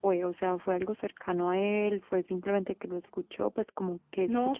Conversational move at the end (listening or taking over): taking over